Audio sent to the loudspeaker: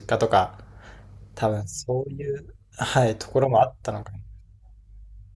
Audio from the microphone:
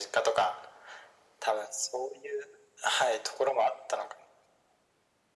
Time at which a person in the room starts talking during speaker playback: none

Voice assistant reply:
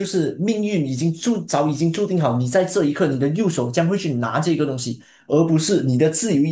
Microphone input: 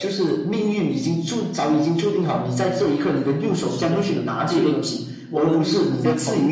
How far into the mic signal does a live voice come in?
3.6 s

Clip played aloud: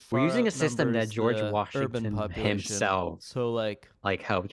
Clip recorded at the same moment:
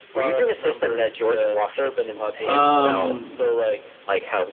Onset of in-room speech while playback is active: 2.4 s

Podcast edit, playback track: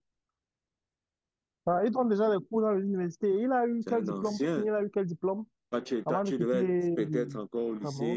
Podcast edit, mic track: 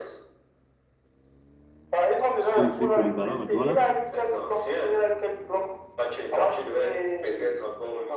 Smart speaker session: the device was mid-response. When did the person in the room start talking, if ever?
2.5 s

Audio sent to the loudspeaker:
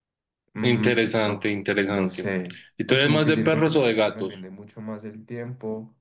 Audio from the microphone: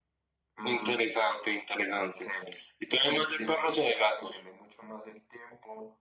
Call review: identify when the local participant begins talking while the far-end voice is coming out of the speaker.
none

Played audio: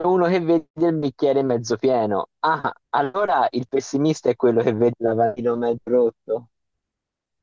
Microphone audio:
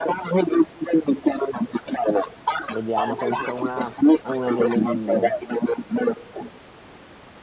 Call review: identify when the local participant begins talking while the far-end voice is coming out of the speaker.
2.7 s

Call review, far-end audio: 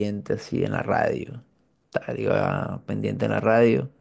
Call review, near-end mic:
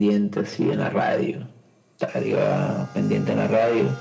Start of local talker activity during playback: none

